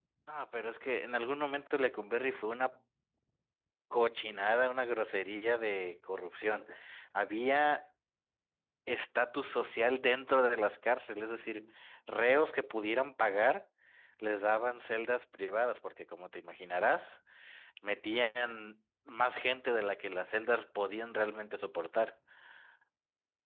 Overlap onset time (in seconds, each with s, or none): none